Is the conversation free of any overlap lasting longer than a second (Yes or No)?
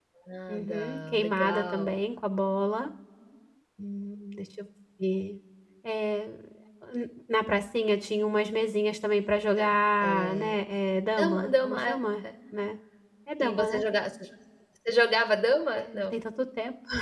No